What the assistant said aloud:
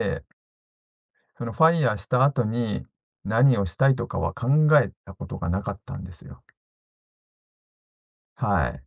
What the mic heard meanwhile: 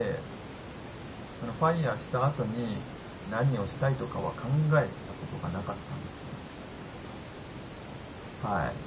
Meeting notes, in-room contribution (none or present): none